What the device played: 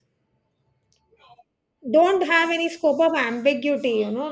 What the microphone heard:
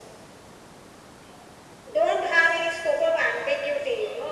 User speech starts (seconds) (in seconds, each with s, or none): none